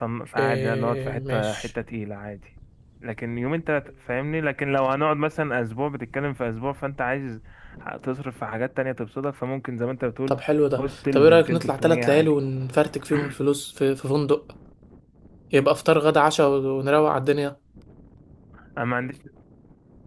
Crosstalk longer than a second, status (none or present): present